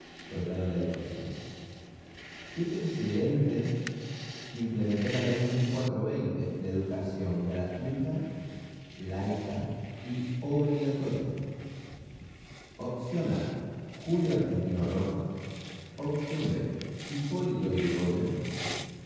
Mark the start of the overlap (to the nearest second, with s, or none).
none